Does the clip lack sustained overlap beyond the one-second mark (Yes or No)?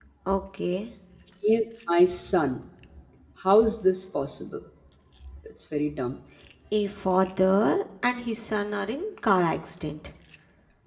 Yes